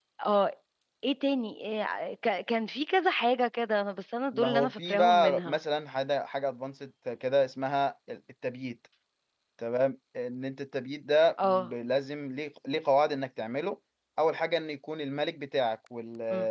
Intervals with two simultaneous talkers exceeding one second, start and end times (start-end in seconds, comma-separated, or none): 4.3-5.6